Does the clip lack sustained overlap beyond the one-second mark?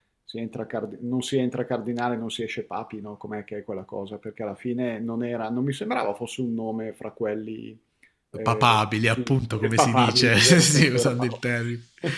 No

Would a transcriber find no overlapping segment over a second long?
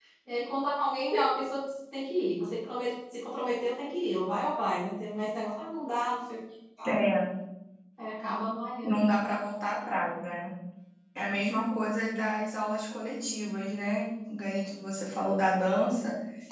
Yes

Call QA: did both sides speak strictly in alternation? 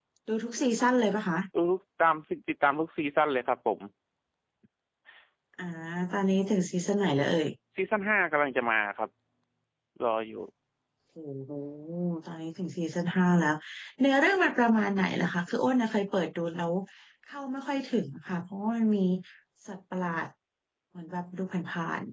Yes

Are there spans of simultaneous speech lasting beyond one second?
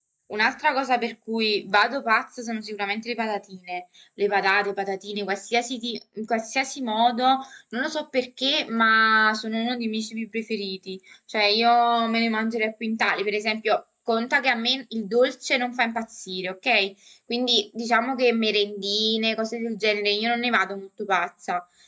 No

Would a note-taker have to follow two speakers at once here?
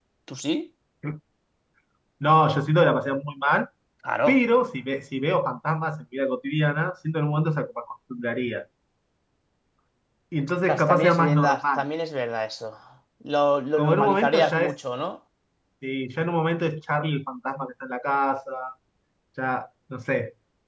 Yes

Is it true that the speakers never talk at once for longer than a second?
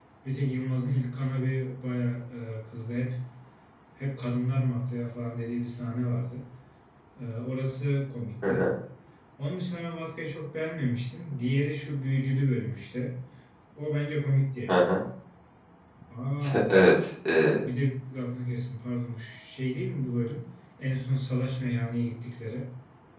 Yes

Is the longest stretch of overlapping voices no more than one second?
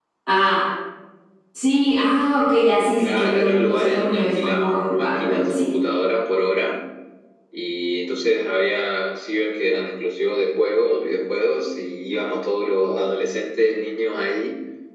No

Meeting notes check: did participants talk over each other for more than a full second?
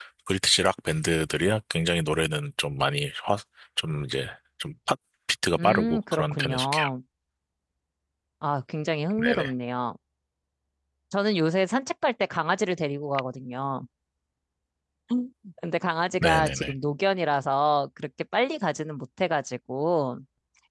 Yes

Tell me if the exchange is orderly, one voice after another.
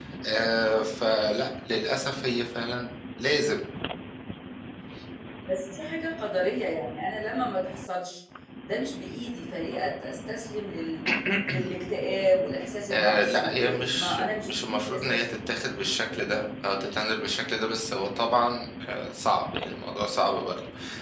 No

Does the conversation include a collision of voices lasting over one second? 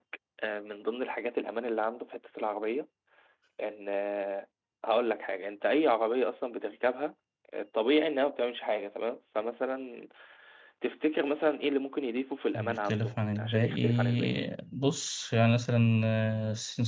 Yes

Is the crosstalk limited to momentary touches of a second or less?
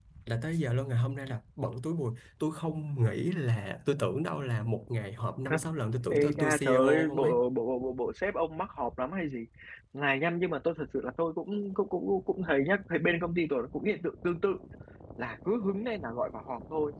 No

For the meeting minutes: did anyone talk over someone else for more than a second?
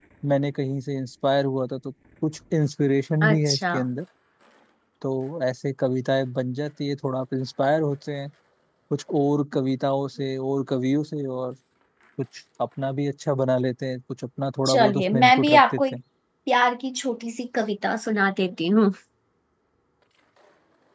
Yes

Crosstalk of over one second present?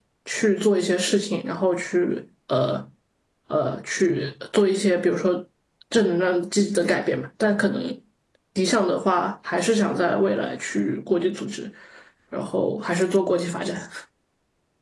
No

